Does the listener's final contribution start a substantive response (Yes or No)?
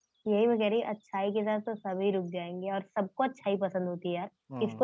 No